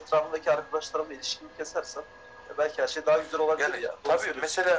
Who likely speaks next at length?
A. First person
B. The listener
B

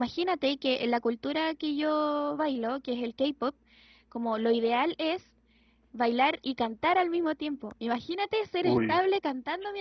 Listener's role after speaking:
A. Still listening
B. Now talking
A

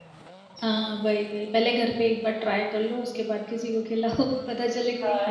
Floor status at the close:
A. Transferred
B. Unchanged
A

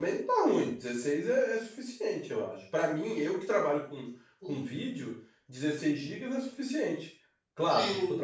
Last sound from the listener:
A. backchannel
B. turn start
A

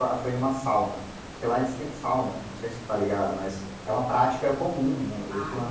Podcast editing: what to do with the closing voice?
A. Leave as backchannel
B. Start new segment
A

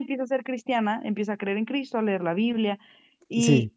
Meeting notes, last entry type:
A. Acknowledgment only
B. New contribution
B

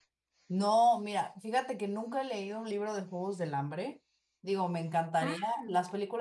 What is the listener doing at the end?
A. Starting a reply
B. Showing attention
B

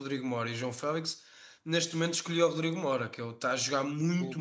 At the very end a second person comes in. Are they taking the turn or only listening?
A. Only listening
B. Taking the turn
A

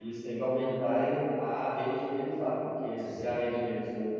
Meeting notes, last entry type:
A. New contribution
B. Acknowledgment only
B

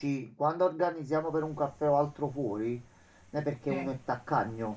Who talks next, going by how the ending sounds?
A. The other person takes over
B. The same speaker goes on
B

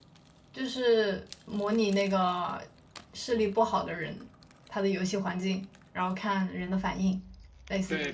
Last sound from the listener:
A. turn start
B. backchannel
A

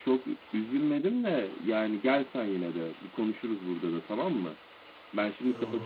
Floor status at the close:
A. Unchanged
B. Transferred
A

